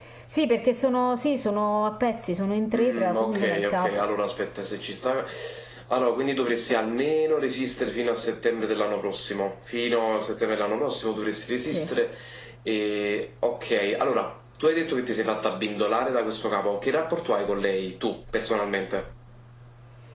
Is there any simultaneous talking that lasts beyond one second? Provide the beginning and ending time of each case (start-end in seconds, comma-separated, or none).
2.8-4.1